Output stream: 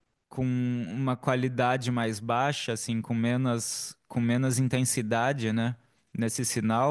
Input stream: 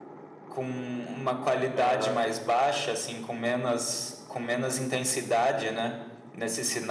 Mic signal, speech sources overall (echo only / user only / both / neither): both